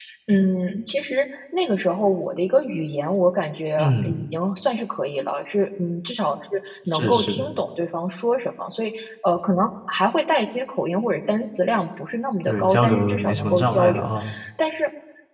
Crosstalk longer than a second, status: present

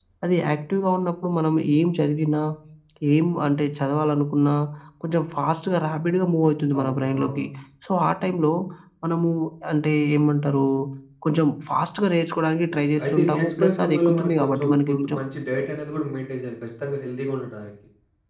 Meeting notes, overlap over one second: present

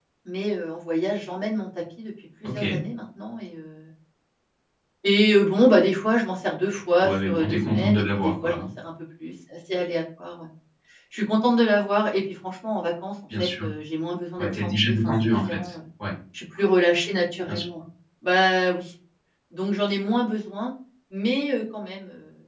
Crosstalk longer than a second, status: present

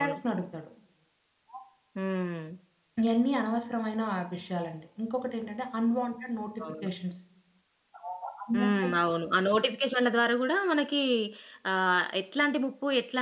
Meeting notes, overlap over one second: none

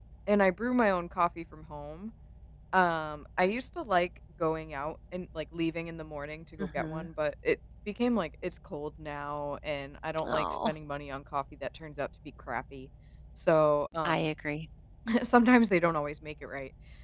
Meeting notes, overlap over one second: none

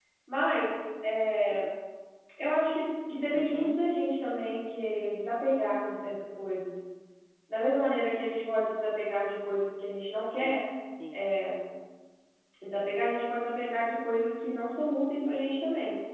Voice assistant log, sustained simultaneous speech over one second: none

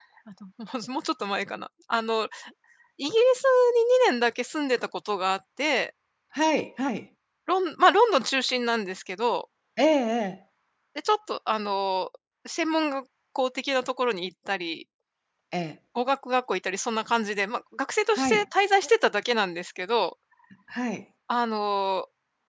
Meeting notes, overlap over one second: none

